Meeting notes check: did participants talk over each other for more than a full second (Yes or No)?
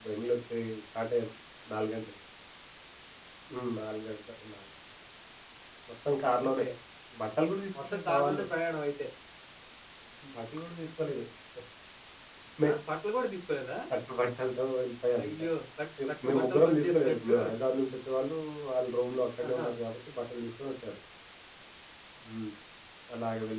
Yes